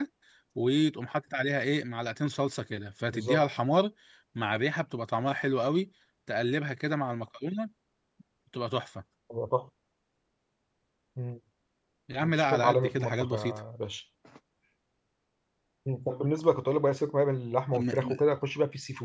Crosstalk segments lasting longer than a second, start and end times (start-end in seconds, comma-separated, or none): 12.2-13.6